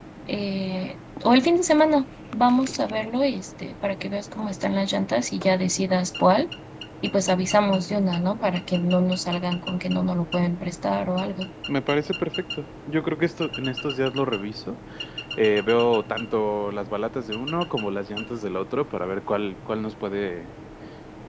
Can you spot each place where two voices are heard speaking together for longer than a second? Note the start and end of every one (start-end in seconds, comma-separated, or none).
none